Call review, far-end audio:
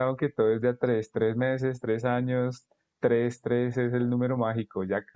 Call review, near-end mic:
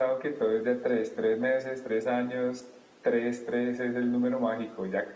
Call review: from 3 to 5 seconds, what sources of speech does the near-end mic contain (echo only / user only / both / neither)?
echo only